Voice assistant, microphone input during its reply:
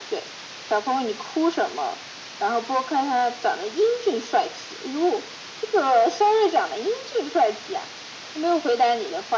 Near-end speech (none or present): none